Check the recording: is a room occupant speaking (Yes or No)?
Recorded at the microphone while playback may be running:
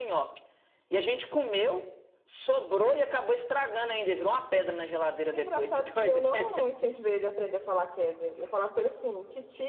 Yes